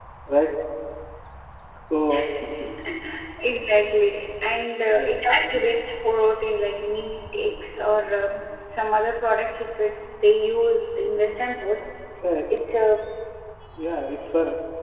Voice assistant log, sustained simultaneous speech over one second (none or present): none